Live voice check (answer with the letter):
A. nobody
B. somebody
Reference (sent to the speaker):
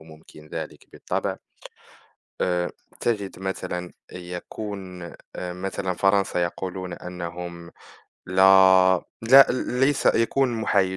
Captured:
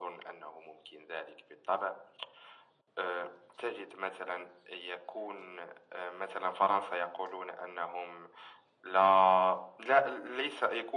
A